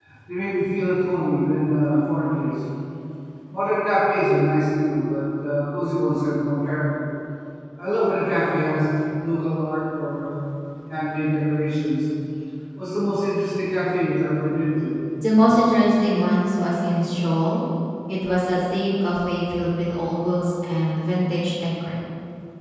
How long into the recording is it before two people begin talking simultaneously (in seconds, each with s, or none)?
none